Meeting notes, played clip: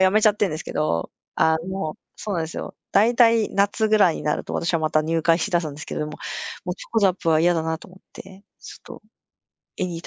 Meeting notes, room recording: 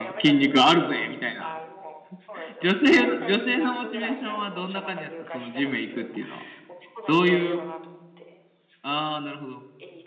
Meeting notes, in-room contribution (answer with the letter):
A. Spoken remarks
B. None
A